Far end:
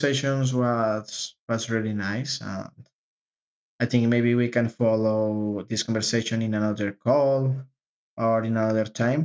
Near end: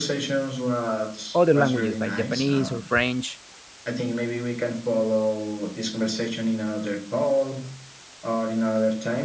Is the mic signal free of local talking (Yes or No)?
No